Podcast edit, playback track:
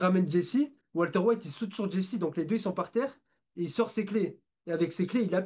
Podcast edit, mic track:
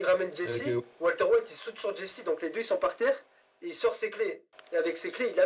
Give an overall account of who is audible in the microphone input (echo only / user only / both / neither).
both